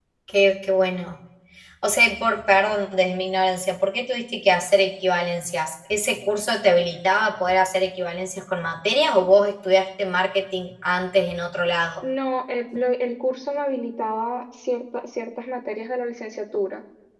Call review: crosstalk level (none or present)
none